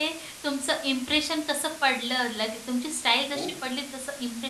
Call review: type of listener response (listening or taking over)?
listening